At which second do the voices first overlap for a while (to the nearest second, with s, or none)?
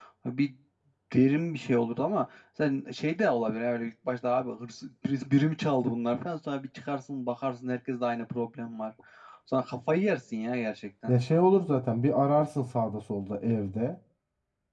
none